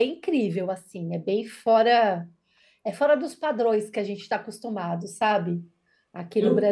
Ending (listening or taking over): taking over